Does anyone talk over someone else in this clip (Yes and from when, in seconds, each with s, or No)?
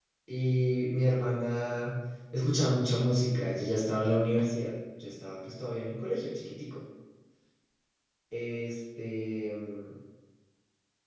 No